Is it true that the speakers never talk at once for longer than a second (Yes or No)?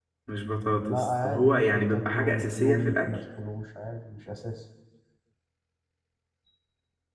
No